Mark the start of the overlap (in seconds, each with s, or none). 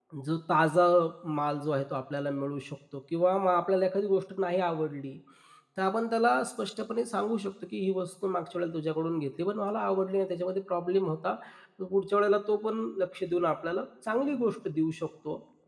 none